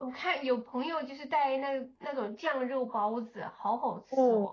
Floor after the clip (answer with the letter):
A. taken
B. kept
A